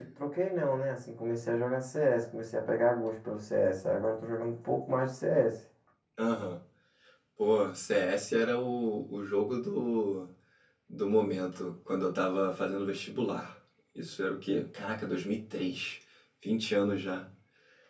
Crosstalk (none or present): none